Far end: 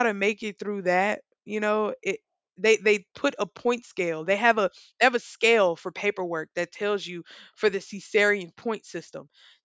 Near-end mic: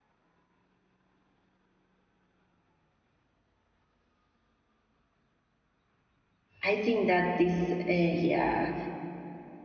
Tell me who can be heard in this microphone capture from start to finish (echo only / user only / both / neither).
user only